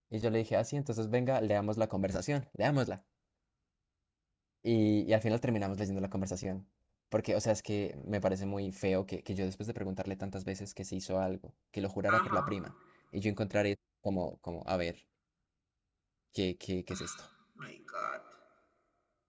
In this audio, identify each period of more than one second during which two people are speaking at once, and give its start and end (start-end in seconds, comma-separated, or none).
none